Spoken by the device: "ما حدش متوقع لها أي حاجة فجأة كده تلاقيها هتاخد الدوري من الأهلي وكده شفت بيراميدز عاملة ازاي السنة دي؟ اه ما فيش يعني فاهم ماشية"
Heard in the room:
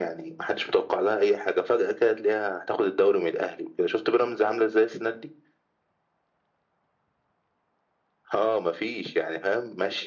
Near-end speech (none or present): none